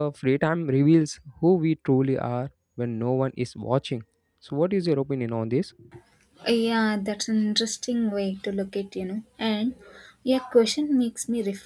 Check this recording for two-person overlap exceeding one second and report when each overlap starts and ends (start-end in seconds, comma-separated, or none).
none